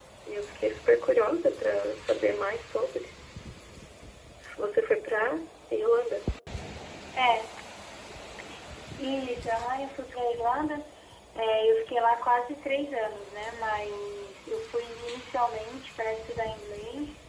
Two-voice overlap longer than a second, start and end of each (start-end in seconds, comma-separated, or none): none